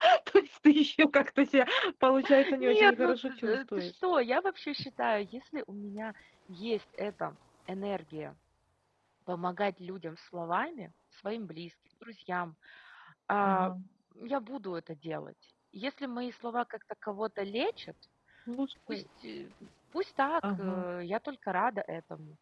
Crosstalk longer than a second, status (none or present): present